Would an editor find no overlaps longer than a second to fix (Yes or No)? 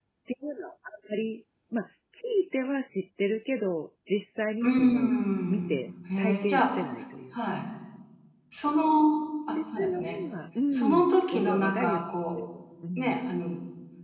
No